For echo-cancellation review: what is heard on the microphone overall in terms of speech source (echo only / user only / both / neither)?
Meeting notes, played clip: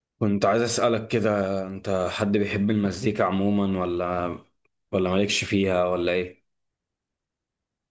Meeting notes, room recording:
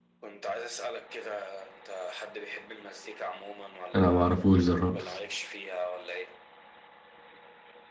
both